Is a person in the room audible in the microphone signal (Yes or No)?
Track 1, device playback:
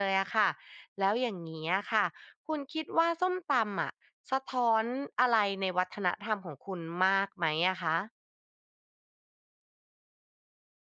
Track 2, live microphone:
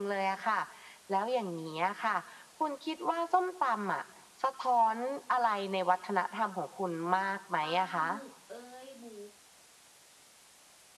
Yes